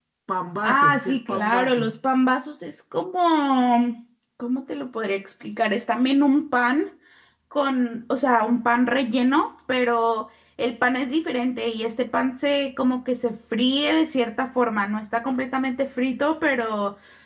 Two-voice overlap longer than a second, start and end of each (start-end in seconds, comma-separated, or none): 0.6-1.9